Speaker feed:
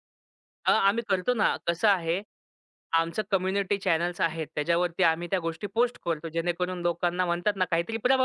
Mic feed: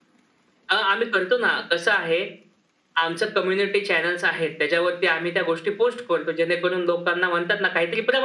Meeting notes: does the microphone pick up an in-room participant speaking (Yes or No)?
No